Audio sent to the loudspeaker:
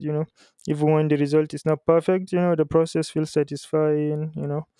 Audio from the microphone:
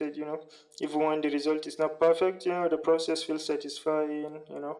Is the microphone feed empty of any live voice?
Yes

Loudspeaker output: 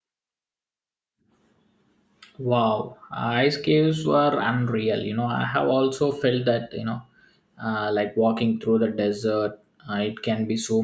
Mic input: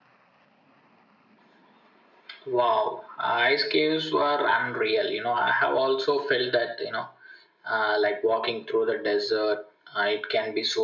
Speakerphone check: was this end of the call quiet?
Yes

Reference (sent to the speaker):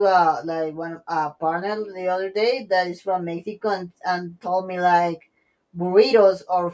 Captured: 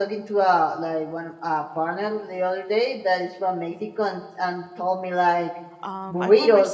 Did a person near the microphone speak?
Yes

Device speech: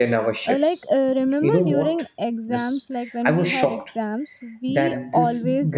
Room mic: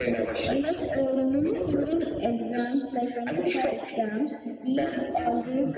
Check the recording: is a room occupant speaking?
No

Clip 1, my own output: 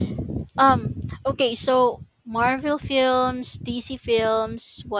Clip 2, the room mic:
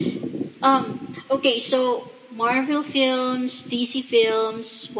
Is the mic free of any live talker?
Yes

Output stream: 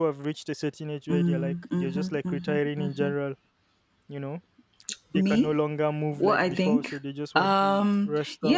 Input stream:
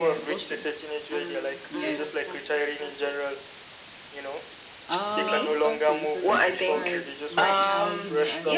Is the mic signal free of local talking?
No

